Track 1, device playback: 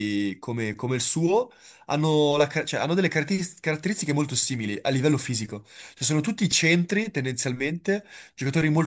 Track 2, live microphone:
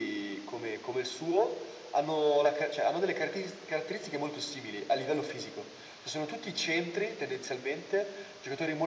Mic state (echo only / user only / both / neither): echo only